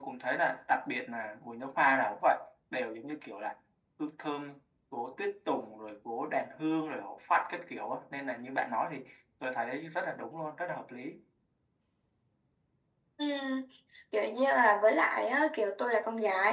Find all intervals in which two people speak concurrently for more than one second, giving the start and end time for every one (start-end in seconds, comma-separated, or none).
none